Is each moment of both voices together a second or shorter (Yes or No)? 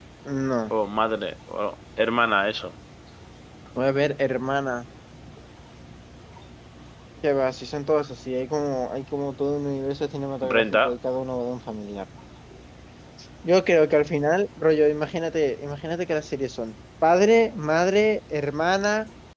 Yes